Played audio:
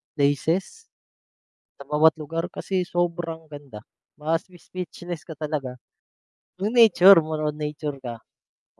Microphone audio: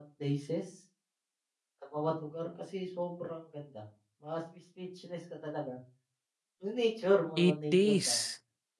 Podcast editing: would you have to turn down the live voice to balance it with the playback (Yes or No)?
Yes